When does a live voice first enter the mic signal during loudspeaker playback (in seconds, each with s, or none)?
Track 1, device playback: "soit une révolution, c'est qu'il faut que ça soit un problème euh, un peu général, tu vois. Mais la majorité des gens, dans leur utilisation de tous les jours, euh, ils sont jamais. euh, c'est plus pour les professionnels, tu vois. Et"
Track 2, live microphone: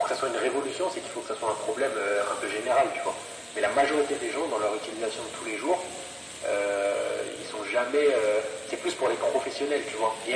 none